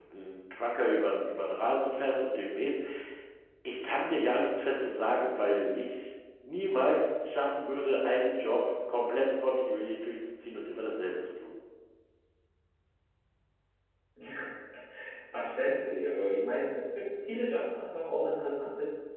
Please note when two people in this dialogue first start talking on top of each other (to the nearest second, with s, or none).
none